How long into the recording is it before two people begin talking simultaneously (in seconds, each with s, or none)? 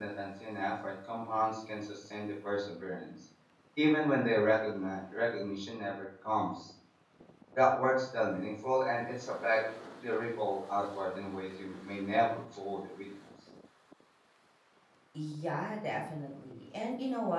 none